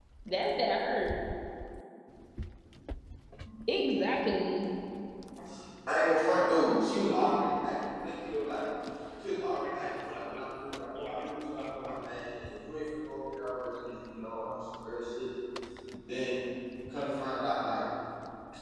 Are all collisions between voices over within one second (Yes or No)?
Yes